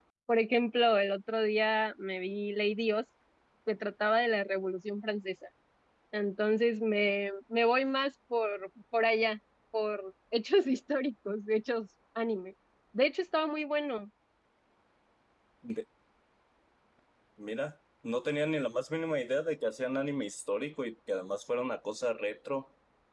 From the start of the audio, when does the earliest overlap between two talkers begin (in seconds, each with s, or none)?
none